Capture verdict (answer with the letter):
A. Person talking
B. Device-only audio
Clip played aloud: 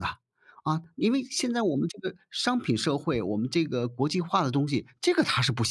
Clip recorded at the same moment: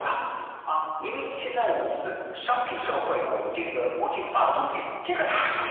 B